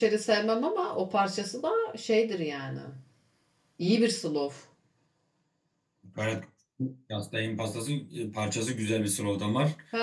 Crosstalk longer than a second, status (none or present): none